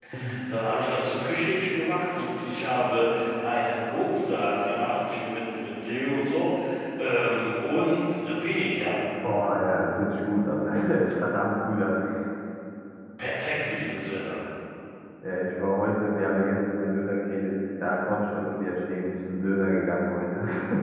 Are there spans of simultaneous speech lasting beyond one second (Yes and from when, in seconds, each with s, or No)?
No